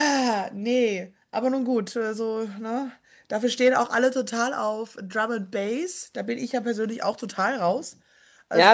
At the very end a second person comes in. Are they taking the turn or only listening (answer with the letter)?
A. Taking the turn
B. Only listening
A